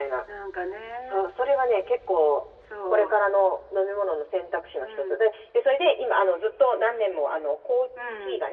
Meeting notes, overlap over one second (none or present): none